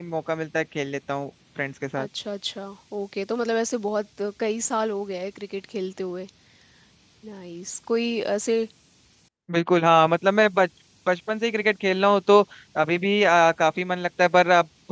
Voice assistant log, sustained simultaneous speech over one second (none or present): none